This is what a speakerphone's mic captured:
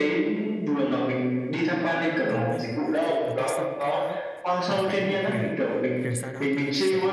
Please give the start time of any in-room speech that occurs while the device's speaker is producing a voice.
2.3 s

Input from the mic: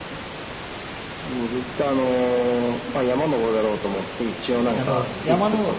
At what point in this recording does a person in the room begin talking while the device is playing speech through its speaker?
4.5 s

